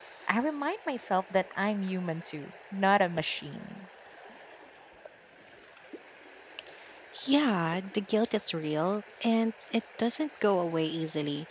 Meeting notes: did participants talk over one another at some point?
No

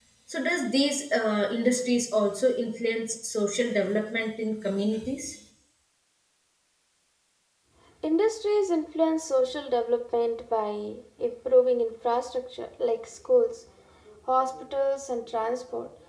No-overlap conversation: Yes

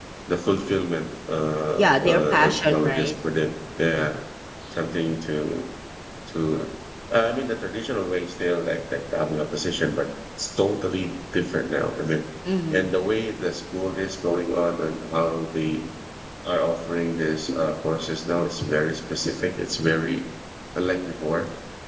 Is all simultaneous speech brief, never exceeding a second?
No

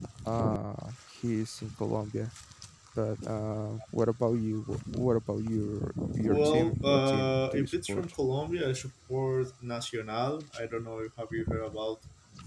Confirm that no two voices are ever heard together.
No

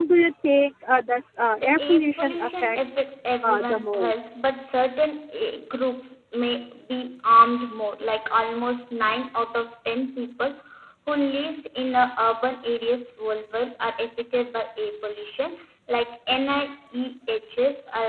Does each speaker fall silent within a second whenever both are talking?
No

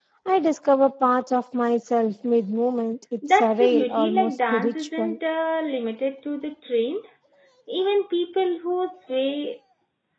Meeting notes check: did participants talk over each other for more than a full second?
Yes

